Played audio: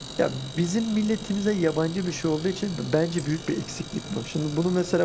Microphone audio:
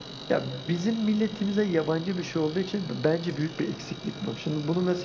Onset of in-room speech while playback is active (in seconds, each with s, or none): none